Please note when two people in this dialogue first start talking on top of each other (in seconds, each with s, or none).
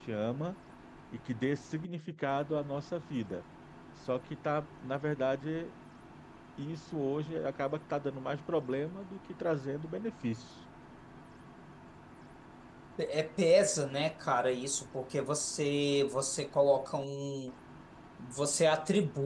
none